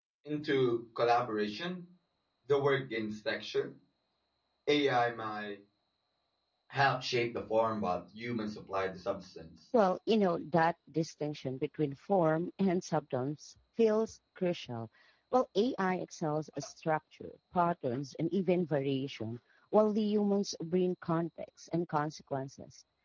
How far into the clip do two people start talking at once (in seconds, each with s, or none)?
none